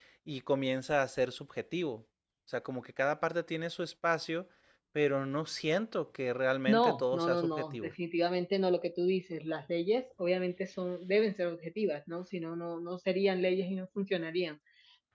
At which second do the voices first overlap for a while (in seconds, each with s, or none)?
6.7 s